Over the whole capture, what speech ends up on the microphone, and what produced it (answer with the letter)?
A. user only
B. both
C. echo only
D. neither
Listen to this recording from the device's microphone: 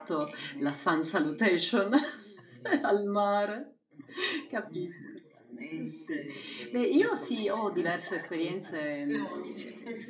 B